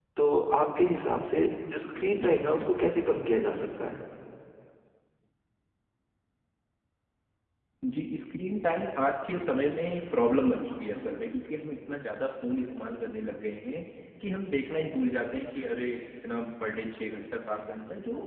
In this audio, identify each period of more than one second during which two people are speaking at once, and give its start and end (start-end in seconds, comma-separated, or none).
none